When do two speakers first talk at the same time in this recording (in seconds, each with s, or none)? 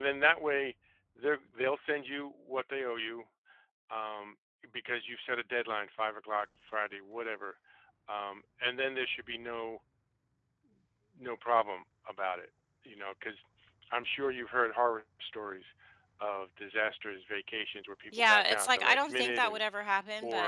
18.1 s